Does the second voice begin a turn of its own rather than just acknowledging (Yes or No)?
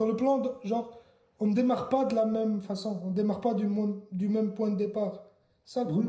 Yes